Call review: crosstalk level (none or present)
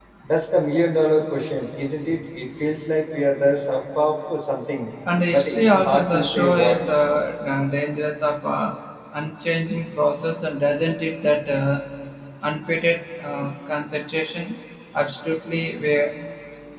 present